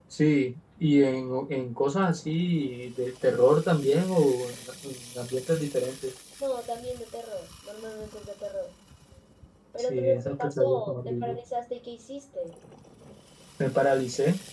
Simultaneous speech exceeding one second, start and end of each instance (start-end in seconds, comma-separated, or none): 9.8-11.4